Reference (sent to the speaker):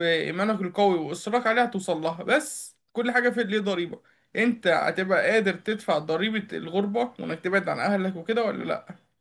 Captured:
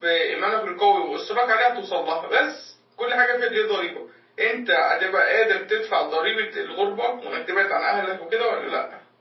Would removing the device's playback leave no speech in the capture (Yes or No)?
Yes